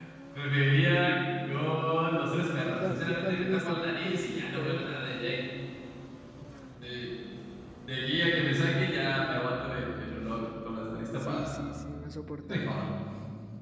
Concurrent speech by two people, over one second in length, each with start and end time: 2.3-5.0

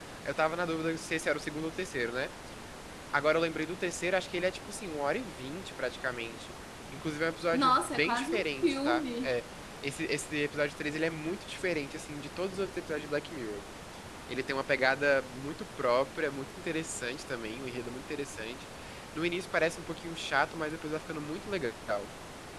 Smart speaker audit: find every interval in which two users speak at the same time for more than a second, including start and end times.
7.5-9.3

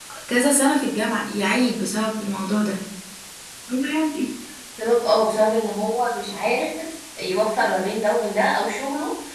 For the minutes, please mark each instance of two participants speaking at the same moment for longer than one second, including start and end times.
none

